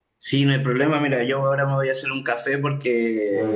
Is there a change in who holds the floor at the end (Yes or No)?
No